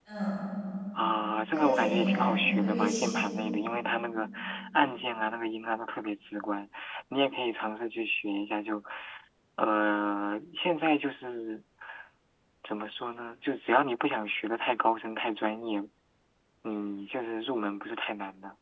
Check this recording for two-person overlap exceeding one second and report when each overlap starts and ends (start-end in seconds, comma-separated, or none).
1.5-3.2